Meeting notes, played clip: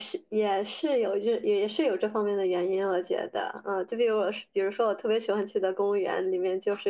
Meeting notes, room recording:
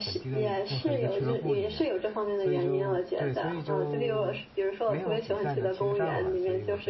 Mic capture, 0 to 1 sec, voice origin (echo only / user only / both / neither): both